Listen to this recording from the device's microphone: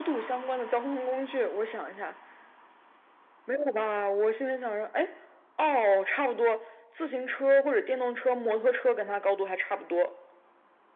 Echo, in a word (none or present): present